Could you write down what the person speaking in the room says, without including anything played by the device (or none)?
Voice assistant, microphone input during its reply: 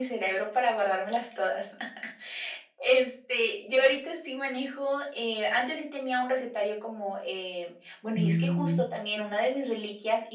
Mm.